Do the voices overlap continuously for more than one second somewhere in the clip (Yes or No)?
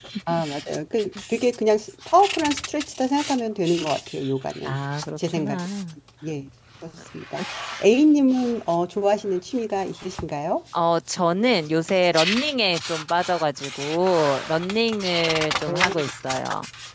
No